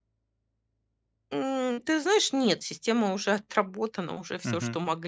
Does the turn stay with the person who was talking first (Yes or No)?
Yes